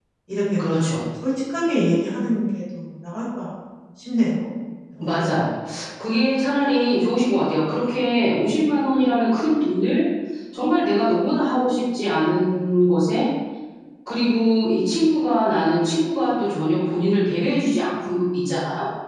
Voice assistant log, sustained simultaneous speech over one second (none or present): none